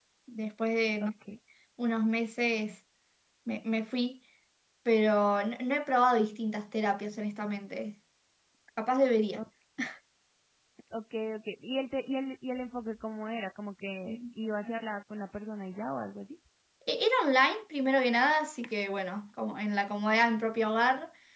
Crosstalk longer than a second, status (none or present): none